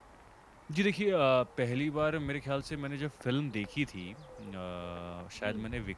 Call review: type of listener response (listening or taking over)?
listening